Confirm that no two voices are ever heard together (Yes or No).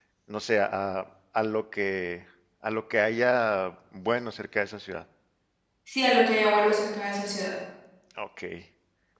Yes